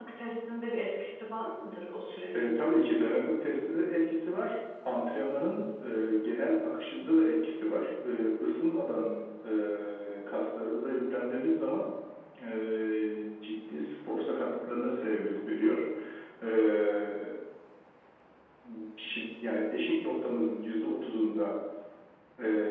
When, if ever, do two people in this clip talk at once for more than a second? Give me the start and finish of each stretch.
none

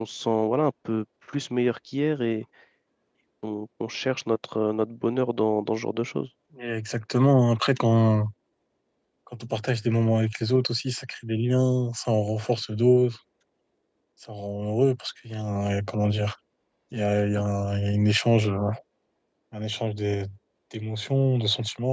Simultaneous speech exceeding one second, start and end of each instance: none

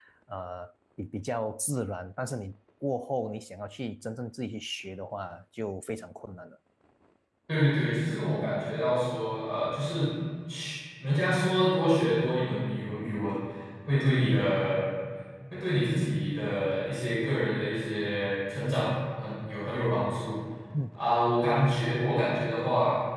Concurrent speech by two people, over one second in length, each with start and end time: none

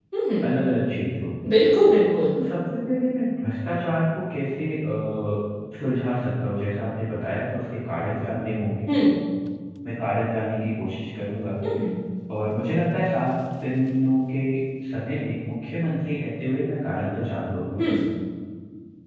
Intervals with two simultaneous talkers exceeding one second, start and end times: none

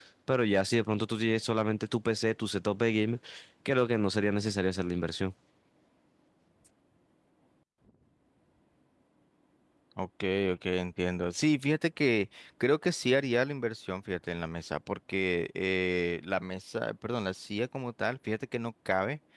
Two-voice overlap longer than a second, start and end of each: none

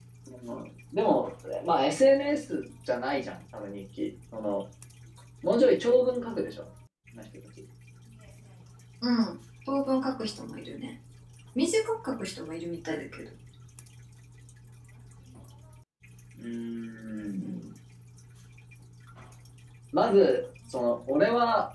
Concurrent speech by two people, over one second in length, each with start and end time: none

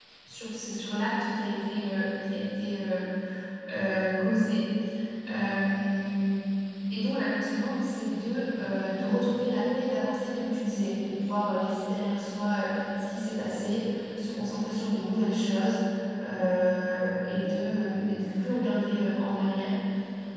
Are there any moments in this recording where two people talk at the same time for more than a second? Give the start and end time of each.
none

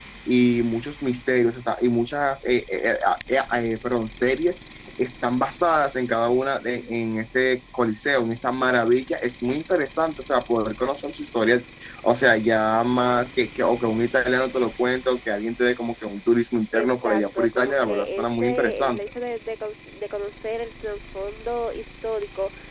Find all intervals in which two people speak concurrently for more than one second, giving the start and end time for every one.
16.8-19.0

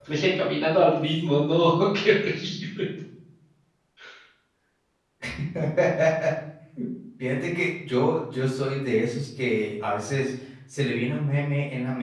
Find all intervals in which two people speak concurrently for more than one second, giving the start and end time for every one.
none

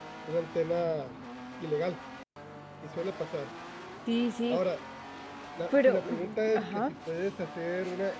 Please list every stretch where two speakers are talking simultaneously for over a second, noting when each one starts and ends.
5.7-6.9

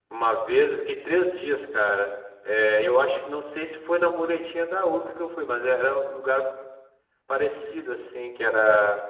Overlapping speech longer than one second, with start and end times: none

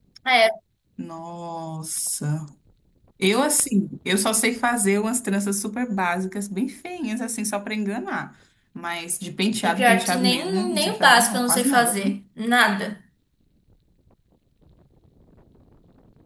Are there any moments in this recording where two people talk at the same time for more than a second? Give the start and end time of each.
9.7-12.2

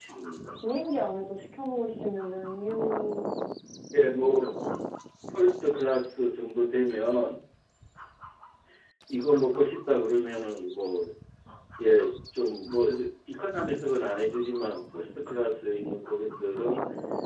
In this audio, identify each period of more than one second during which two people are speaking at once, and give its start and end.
none

